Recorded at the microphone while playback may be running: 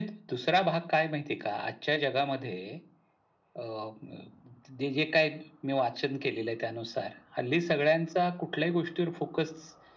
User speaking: No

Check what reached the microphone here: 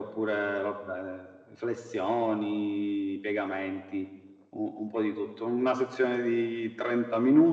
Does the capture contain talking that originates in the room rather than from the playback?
No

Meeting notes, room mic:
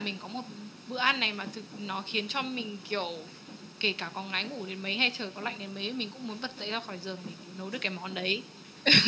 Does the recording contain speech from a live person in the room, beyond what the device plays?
No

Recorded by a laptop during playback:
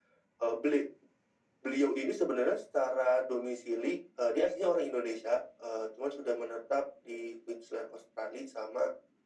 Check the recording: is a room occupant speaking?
No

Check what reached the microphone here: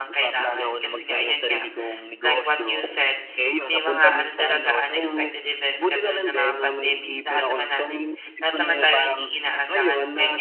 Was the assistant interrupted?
Yes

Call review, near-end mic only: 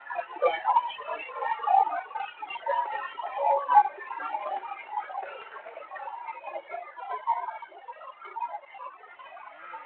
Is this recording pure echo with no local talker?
Yes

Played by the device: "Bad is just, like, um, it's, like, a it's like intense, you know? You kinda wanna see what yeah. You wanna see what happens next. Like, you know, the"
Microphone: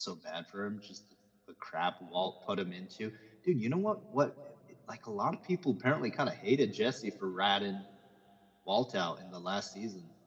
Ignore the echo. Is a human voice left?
Yes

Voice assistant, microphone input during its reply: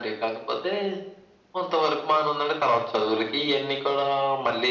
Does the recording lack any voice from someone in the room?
Yes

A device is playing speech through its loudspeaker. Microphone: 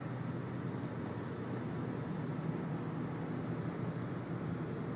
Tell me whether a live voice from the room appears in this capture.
No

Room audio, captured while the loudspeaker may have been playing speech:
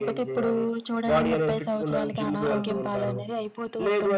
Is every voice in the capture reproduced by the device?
No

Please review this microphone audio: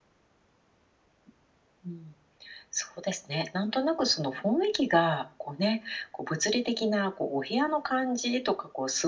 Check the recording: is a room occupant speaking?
No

